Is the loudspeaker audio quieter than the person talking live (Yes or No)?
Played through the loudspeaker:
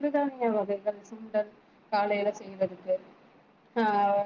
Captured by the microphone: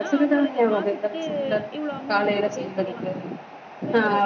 No